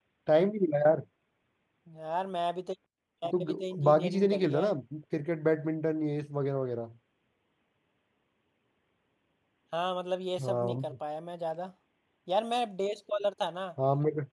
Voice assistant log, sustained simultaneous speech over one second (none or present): present